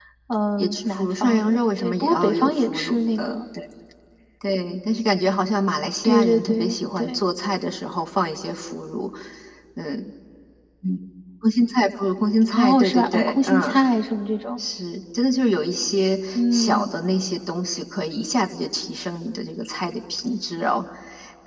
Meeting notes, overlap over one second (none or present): present